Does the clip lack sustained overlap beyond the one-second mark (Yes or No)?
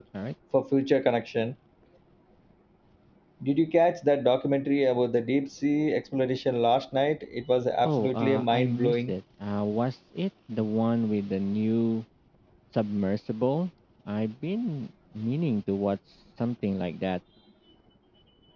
No